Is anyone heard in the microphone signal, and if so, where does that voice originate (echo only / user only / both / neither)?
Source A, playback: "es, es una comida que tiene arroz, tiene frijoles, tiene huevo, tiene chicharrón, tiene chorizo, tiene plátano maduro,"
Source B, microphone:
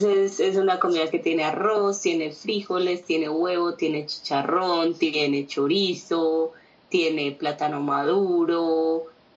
echo only